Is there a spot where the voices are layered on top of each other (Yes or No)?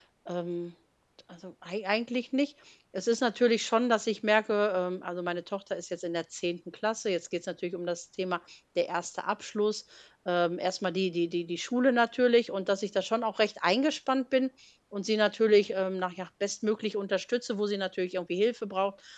No